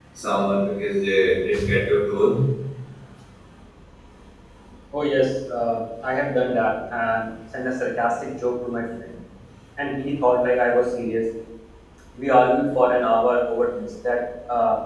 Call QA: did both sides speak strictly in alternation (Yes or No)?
Yes